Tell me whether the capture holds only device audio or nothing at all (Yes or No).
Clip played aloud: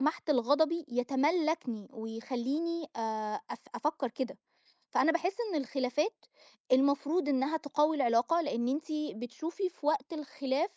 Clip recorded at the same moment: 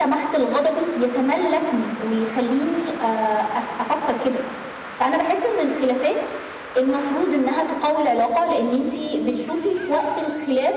Yes